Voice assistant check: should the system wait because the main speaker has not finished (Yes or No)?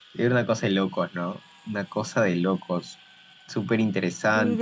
No